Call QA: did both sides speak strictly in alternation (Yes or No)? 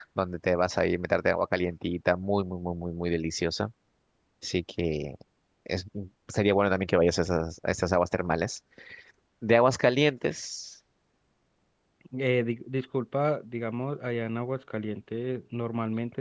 Yes